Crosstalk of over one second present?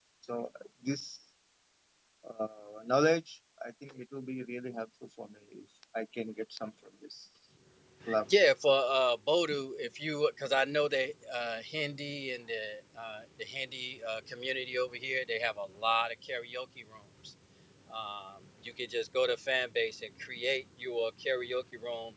No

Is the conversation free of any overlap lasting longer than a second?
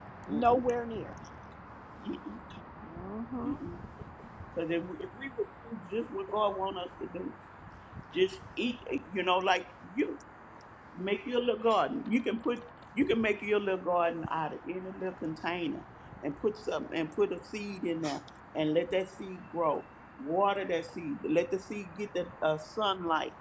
Yes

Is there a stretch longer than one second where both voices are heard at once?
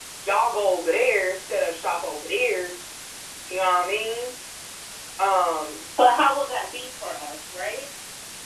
No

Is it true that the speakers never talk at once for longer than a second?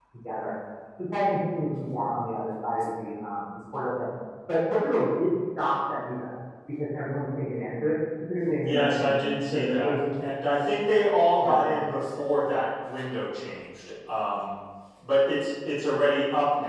No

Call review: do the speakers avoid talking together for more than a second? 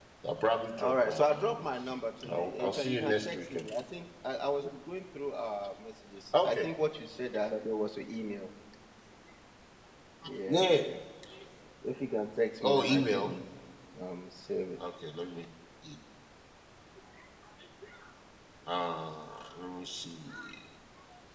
No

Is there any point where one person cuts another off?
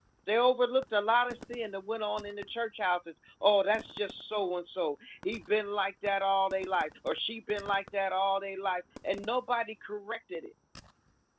No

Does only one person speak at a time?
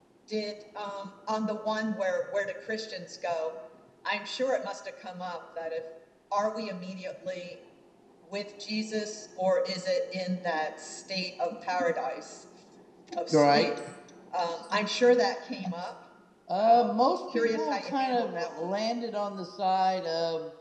No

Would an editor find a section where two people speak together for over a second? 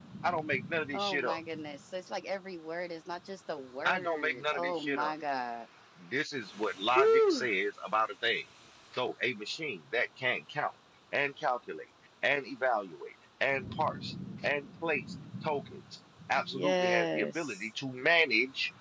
Yes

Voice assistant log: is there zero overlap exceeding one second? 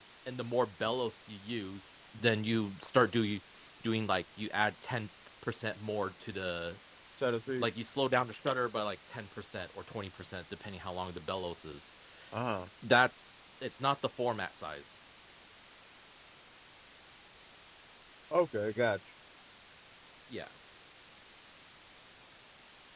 Yes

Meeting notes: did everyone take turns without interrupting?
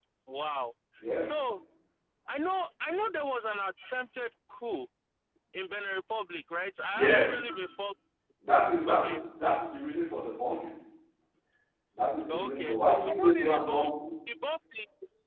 No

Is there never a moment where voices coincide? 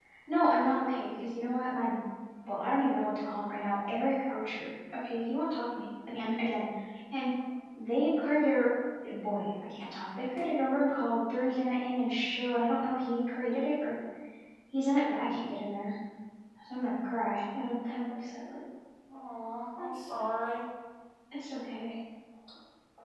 Yes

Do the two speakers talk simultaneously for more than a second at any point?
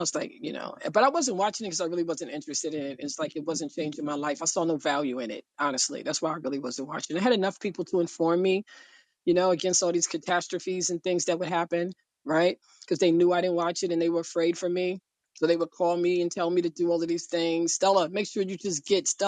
No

